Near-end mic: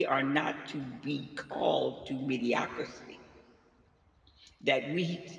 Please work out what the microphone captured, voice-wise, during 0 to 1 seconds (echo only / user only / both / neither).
user only